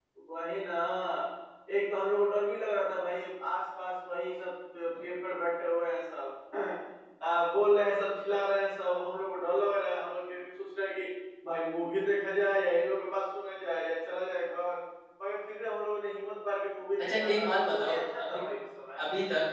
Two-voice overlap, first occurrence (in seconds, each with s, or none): 17.0 s